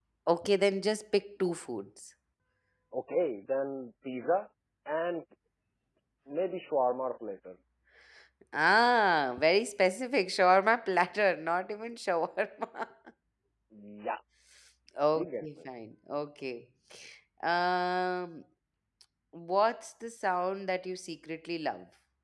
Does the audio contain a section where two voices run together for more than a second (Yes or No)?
No